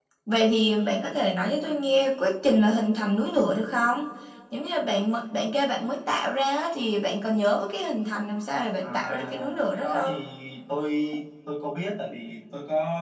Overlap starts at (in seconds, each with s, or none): 8.8 s